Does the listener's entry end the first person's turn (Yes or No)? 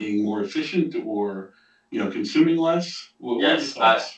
Yes